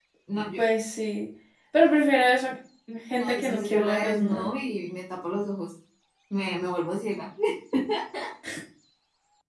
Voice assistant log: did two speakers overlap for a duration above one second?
Yes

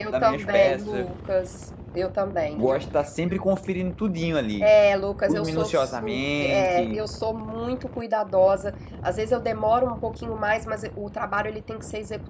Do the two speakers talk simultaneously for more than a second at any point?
Yes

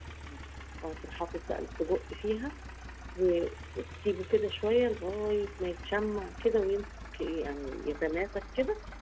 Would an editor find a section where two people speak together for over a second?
No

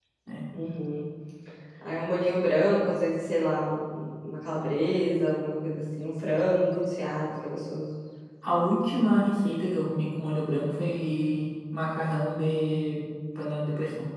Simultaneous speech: No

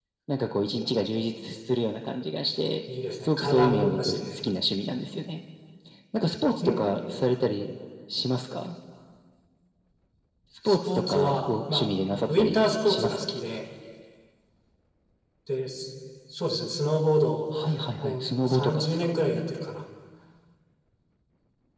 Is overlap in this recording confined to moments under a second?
No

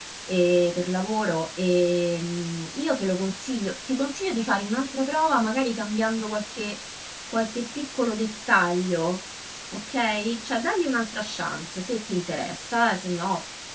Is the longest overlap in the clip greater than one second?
No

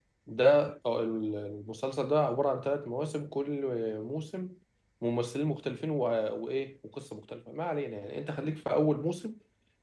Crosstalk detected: No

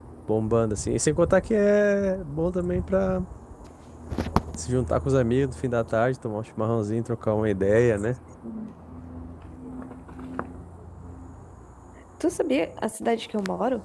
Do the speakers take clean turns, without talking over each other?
Yes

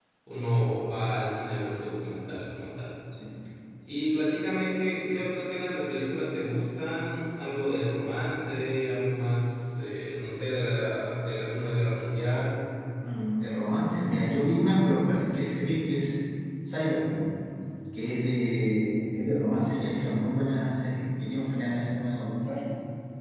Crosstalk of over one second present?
No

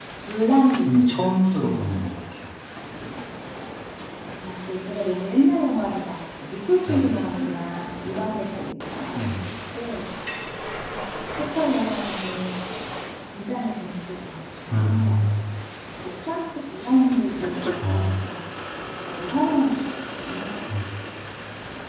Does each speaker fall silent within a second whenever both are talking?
Yes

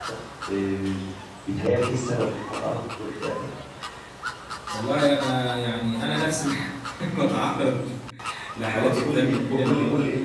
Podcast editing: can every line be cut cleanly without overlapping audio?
No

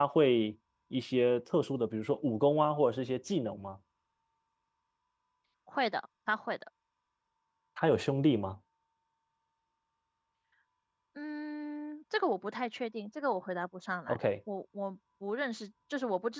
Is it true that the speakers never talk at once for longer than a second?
Yes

